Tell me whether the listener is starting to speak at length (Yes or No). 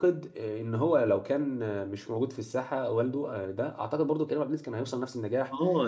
Yes